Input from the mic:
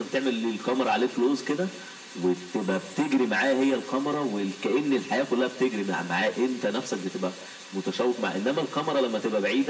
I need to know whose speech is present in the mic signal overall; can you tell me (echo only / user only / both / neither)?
echo only